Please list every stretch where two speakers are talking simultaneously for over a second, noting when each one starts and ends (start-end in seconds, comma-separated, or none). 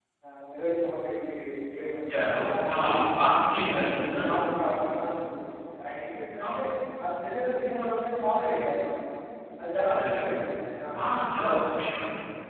none